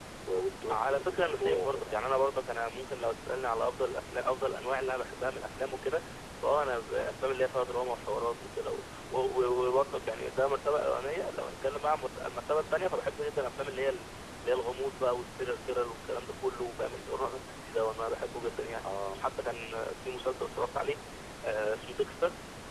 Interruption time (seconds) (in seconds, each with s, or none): 0.7 s